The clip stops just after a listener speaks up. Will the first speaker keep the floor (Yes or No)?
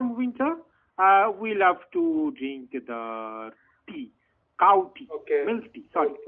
No